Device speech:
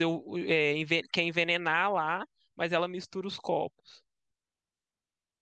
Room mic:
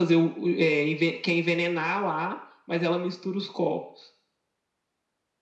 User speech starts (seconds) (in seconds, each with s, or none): none